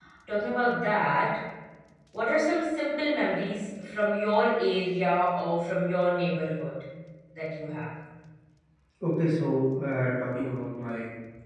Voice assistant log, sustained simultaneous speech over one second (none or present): none